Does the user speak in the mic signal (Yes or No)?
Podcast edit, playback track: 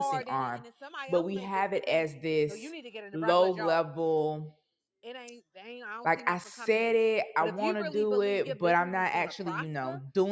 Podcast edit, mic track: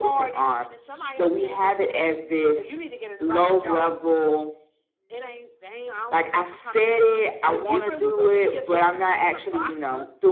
No